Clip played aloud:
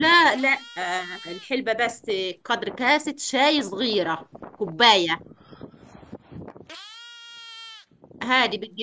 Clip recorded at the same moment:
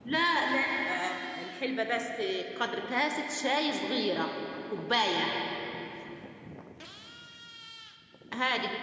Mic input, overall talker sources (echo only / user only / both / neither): echo only